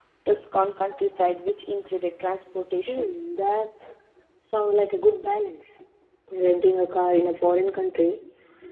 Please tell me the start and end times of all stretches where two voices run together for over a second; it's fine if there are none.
none

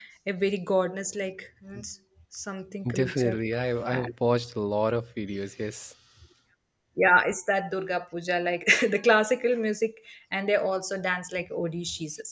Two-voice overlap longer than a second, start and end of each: none

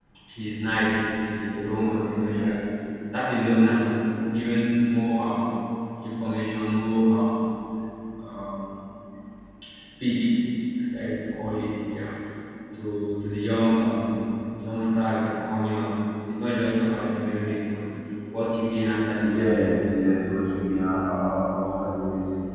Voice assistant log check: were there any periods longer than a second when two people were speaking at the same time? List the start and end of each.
none

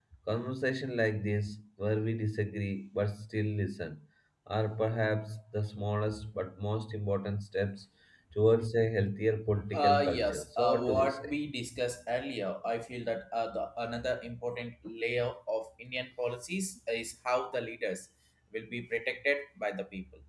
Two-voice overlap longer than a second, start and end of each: 9.7-11.3

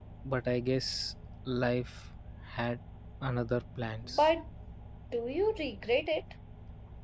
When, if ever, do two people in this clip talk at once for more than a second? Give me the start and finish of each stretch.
none

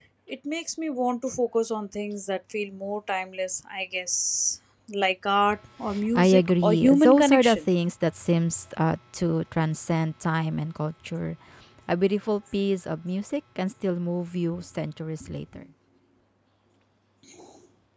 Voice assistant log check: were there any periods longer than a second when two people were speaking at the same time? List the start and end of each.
6.2-7.6

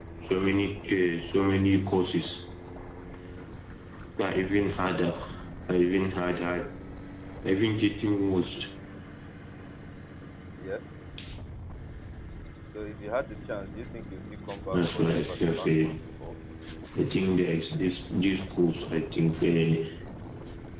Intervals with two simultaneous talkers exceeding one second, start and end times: 14.7-15.9

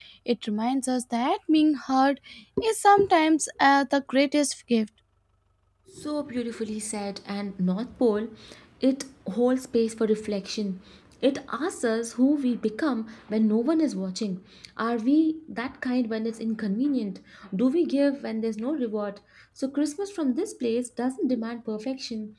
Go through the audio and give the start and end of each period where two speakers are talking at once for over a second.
none

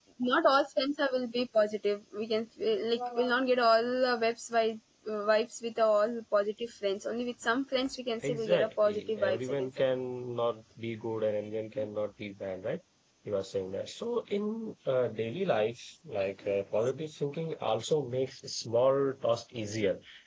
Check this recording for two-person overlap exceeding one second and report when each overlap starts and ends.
8.2-9.7

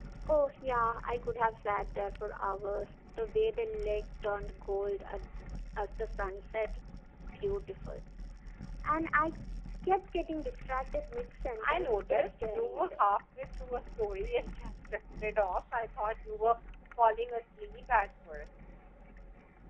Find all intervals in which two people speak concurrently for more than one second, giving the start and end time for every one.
11.6-13.0

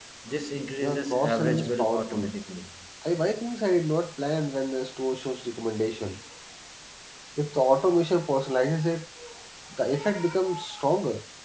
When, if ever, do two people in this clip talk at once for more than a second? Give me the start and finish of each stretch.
0.8-2.3

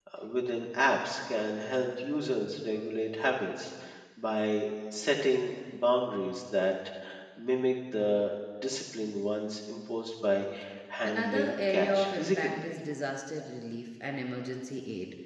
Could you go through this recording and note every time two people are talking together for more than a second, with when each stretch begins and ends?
11.0-12.5

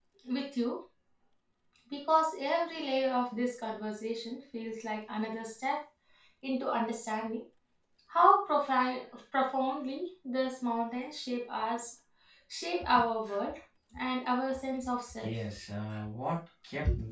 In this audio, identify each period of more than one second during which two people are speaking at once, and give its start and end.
none

